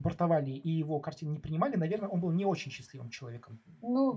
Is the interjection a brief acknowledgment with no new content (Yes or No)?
No